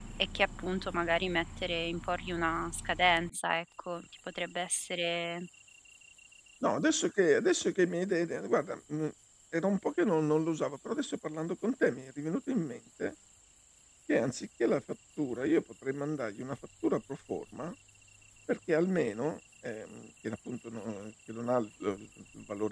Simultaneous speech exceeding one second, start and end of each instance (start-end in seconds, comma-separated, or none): none